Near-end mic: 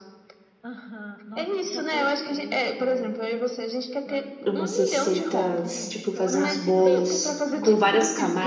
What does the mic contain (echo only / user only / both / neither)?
both